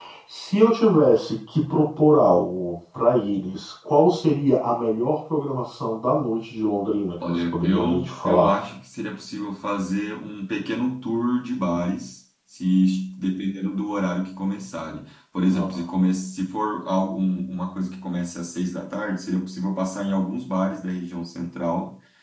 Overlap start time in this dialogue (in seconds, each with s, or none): 7.2 s